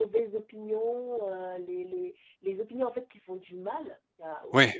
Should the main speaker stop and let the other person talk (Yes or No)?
No